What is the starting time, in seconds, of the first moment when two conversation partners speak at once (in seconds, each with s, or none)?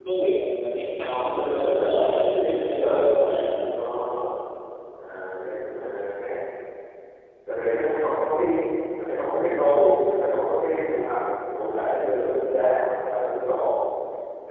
1.0 s